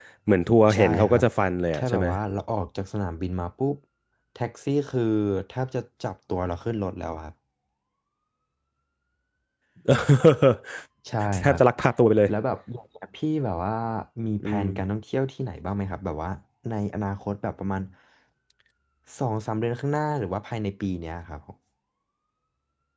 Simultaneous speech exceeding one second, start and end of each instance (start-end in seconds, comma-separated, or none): none